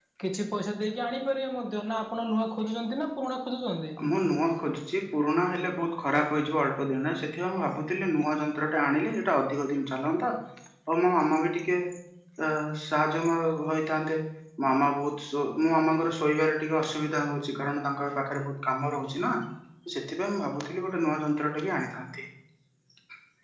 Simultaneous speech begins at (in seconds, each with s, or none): none